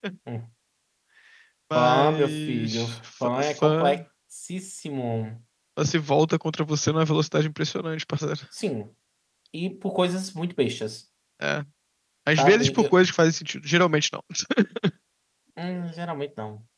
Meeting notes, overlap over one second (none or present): present